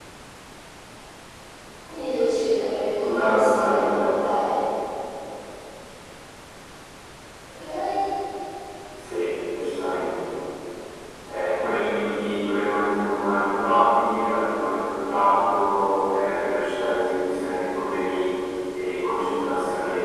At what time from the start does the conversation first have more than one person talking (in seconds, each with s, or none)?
2.9 s